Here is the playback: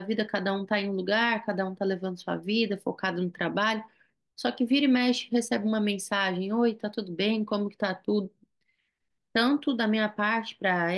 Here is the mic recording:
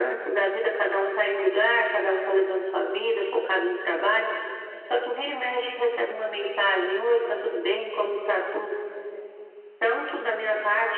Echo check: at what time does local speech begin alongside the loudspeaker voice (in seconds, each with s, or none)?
none